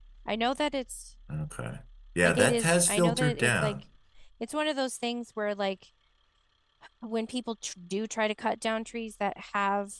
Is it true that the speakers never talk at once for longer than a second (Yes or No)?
No